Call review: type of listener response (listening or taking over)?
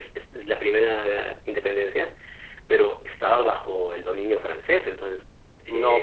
taking over